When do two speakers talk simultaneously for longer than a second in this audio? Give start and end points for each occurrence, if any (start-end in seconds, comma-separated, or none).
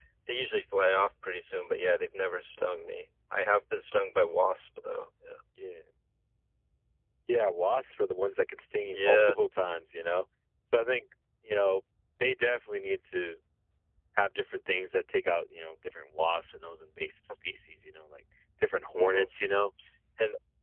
none